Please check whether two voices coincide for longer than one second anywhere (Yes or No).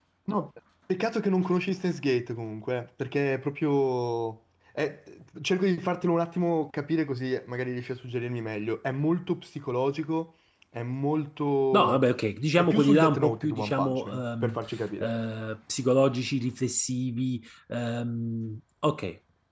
Yes